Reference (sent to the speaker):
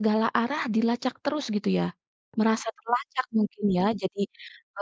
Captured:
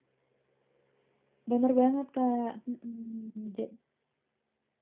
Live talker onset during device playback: 1.5 s

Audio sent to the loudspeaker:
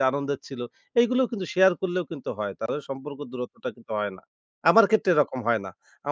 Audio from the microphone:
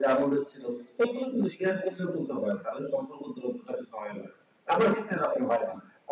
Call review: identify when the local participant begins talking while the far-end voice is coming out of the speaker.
none

